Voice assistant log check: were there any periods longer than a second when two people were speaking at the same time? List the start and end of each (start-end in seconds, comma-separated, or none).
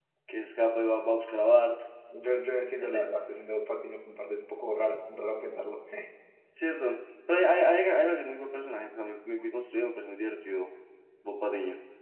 none